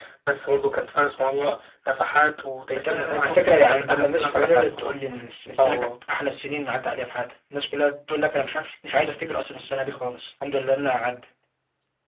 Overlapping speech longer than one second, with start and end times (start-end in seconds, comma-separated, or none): 2.8-5.0